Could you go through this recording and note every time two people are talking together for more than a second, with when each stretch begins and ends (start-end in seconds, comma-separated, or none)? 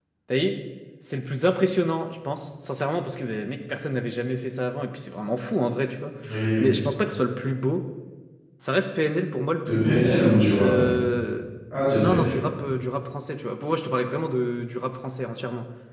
none